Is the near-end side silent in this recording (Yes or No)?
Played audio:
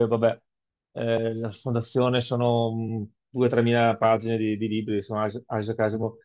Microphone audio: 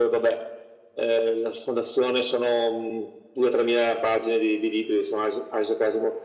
Yes